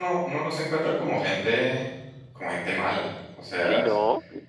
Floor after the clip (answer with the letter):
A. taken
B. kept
A